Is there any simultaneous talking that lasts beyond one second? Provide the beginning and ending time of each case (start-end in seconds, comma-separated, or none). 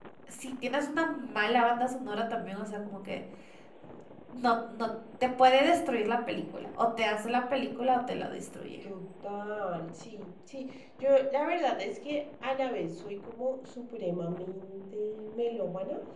none